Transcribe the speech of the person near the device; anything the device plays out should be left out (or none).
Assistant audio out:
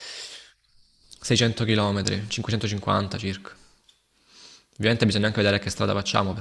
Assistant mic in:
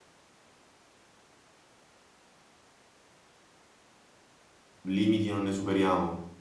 limiti non ne superiamo.